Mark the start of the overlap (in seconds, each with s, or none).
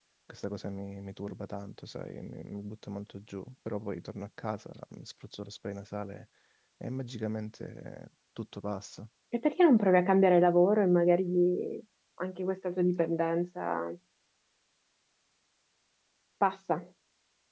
none